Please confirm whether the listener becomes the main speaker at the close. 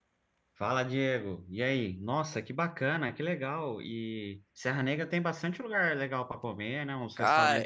Yes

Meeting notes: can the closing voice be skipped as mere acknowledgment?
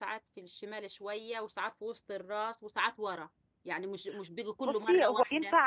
No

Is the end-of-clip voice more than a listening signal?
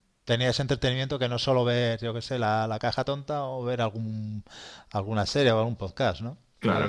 Yes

